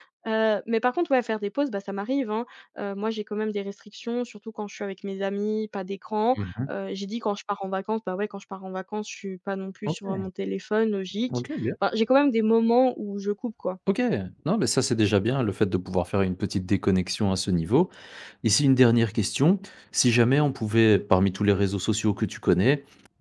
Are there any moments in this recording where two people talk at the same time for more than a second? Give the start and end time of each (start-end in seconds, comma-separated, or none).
none